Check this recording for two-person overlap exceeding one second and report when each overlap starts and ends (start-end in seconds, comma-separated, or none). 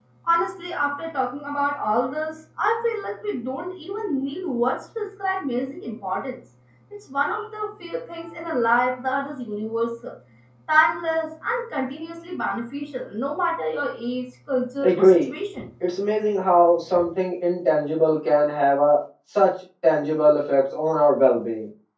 none